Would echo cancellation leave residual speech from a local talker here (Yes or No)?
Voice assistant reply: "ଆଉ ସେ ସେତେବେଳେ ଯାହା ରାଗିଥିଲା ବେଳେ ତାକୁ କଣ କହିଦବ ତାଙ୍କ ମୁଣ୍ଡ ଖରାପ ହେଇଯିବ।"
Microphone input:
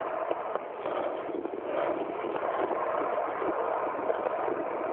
No